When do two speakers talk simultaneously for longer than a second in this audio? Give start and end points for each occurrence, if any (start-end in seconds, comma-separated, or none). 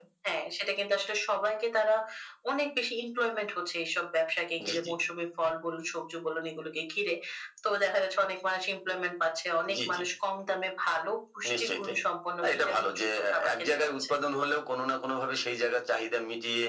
12.4-14.1